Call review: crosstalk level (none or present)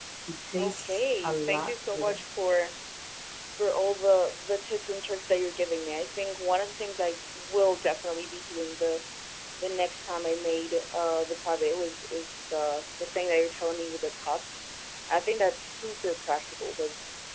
present